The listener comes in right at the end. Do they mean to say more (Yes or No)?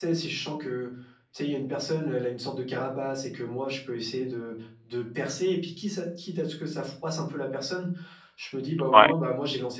No